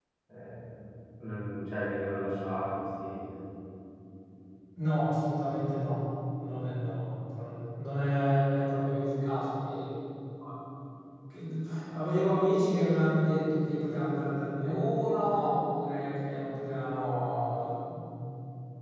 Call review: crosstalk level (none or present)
none